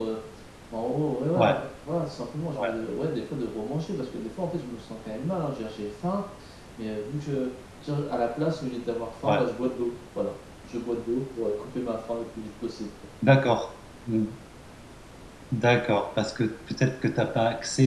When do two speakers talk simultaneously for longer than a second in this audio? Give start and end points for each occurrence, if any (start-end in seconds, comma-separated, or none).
none